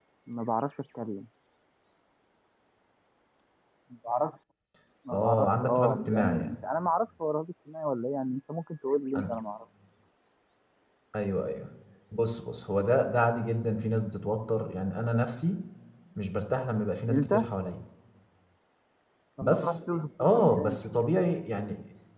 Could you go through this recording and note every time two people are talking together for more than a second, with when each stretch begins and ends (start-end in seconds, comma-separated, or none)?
5.1-6.6